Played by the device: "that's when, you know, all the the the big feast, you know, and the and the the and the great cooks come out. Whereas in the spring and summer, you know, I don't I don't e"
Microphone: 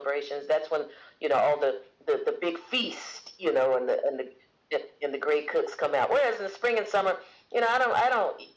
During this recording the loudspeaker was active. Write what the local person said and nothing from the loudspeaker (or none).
none